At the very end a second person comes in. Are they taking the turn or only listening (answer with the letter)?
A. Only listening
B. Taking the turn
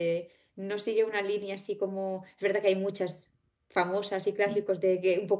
A